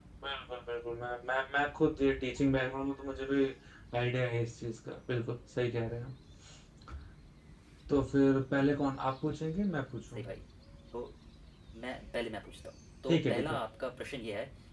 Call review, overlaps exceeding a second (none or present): none